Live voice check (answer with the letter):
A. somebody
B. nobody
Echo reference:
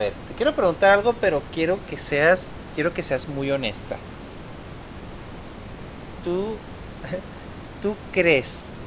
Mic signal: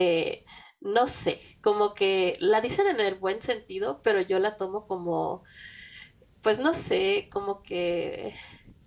A